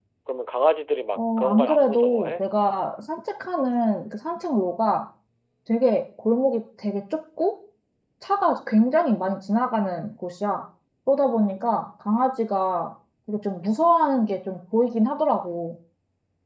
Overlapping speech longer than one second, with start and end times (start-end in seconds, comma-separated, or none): 1.1-2.4